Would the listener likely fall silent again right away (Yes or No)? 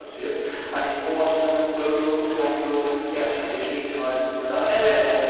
Yes